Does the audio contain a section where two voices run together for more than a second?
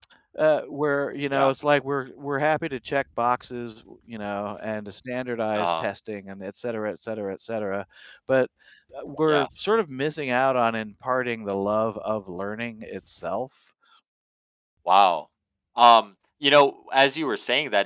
No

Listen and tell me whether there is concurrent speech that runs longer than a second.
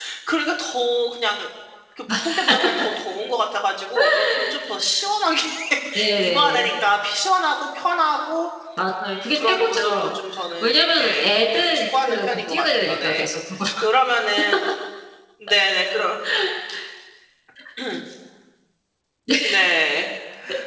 Yes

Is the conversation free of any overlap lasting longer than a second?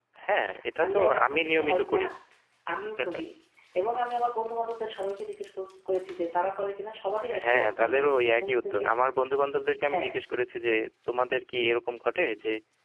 No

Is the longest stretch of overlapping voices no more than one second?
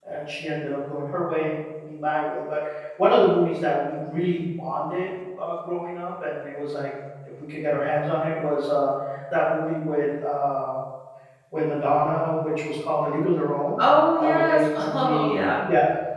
No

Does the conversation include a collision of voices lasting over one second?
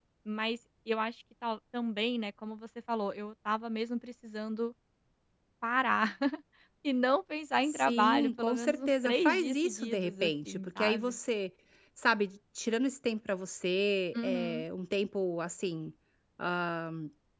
Yes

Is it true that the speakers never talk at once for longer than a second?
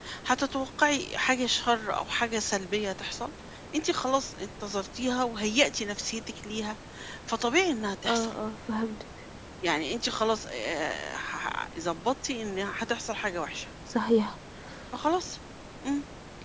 Yes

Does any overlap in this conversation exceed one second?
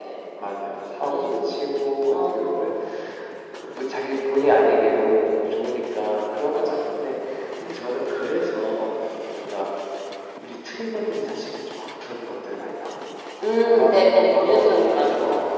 Yes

